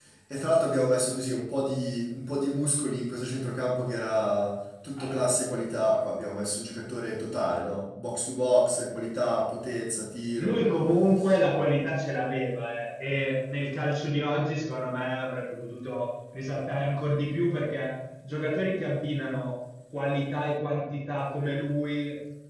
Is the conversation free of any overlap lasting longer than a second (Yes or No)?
Yes